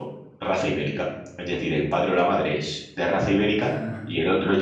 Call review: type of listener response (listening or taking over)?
listening